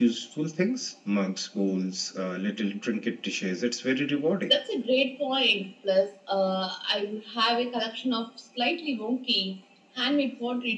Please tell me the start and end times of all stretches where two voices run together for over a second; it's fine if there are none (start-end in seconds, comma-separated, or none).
none